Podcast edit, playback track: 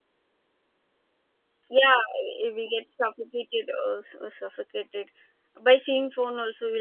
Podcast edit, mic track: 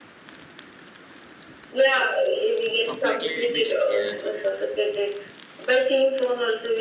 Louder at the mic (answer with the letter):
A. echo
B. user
A